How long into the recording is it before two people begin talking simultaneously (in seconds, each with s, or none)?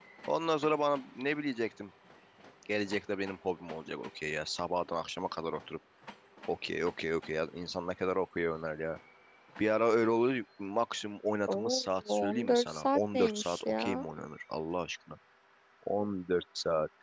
11.5 s